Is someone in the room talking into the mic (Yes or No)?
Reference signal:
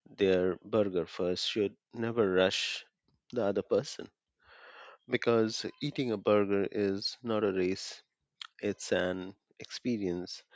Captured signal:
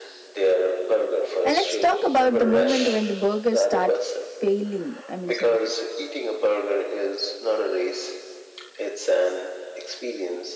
Yes